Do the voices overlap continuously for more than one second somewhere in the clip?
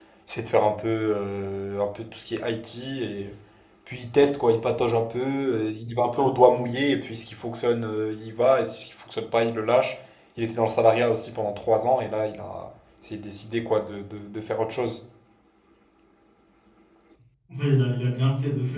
No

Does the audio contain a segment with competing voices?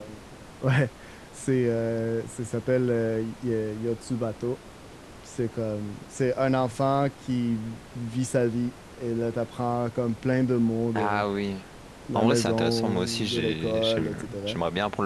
Yes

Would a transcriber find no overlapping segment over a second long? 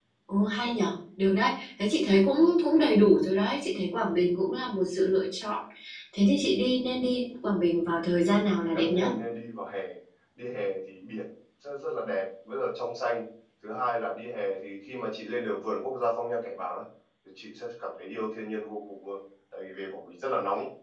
Yes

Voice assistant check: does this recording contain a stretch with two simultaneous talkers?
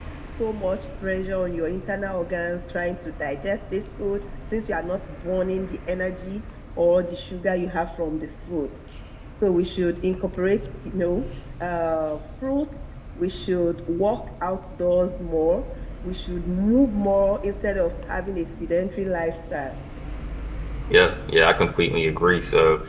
No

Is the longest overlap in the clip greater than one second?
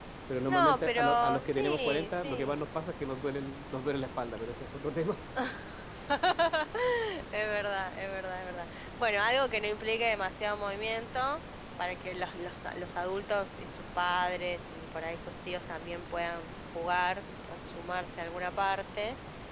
Yes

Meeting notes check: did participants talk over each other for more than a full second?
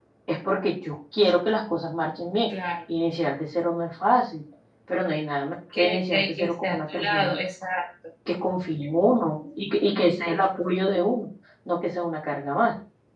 Yes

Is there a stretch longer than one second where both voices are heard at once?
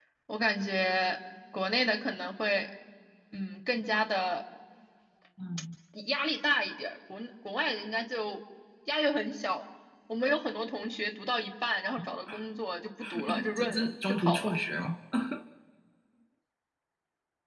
Yes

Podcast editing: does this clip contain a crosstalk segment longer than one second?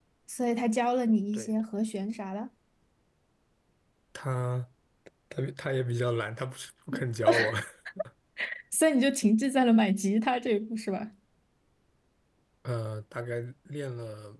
No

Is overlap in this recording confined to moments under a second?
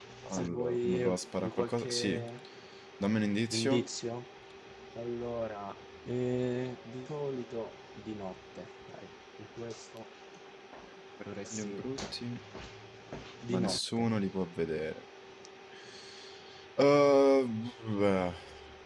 No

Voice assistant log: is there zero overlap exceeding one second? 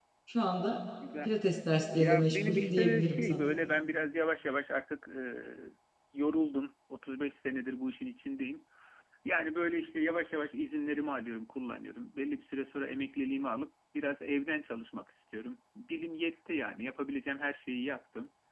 No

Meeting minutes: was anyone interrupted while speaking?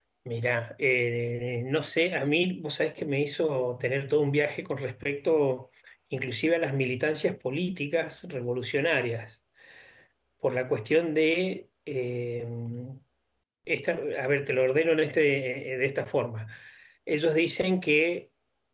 No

